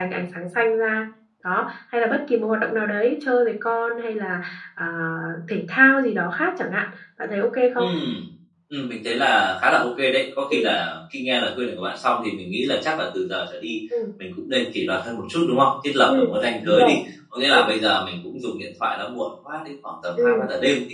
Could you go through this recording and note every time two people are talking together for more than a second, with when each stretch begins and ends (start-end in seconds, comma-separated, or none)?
none